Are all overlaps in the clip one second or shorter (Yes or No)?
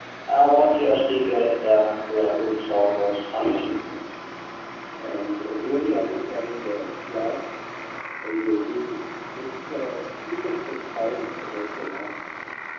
Yes